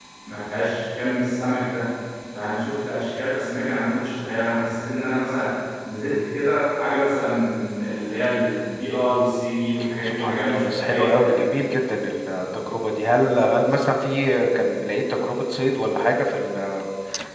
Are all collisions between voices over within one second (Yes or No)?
No